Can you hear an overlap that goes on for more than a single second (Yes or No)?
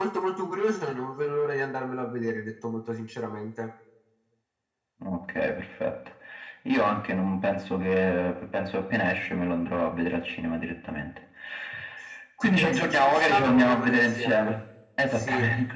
Yes